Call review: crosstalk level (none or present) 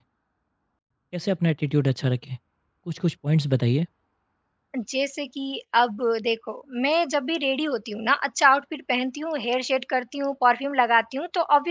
none